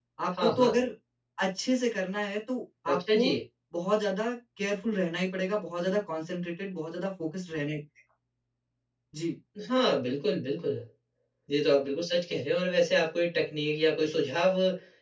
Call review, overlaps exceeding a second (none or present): none